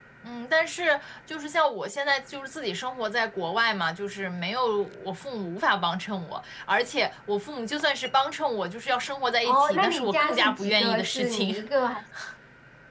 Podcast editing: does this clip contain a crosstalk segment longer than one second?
Yes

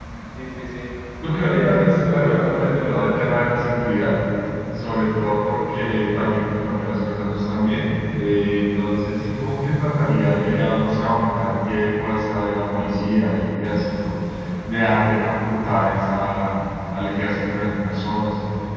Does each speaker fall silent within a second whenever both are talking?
No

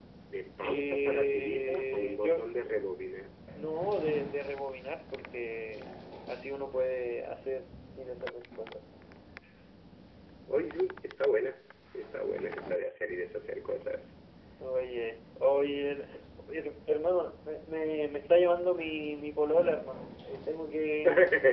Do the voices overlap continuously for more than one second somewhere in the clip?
Yes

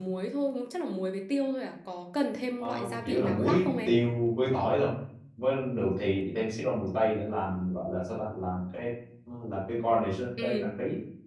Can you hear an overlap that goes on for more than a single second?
Yes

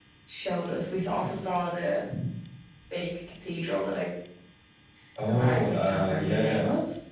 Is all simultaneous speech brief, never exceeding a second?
No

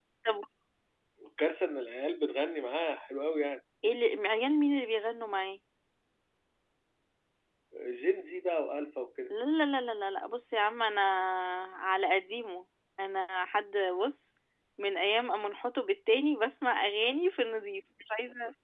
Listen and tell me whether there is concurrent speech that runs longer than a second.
No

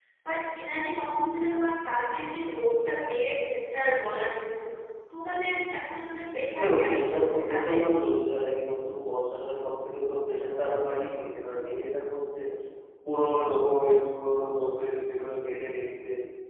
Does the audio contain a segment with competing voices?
Yes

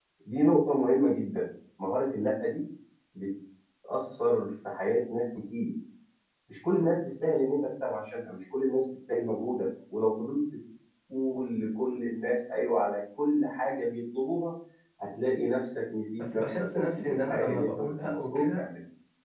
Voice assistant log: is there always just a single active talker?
No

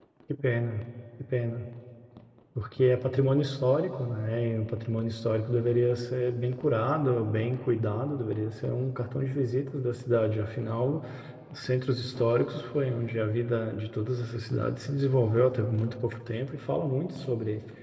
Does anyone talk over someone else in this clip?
No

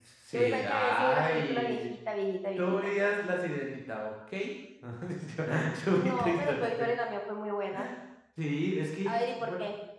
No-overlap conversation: No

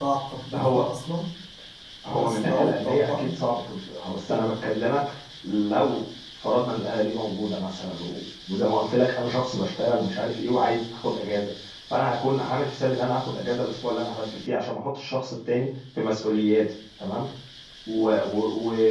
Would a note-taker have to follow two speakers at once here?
Yes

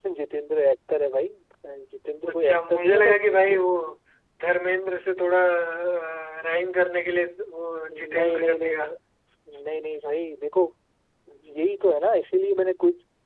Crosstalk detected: Yes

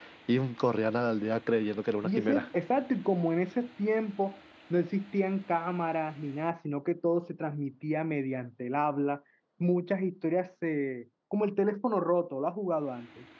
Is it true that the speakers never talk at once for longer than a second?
Yes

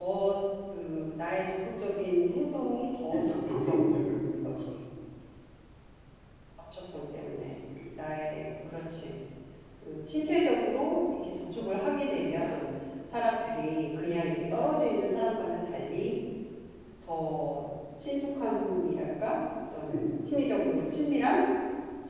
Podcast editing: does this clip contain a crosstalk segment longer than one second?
Yes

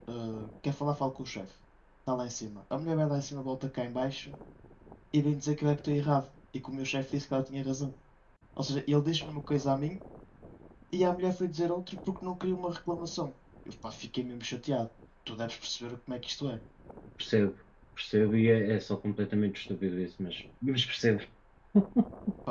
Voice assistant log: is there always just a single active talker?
Yes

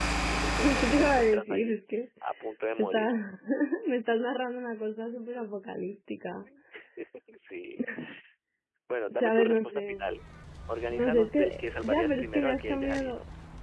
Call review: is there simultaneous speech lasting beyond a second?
Yes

